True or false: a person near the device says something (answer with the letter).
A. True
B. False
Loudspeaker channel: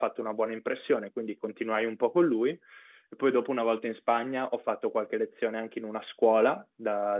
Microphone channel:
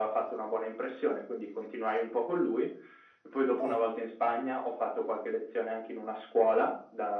A